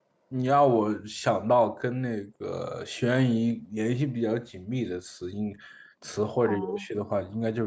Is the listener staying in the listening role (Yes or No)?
Yes